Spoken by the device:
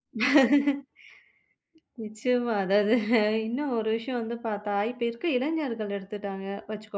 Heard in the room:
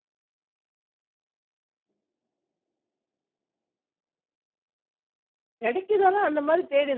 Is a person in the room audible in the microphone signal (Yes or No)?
Yes